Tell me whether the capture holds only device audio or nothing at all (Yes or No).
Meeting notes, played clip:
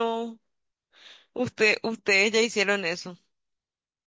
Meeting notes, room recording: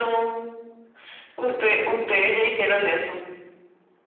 Yes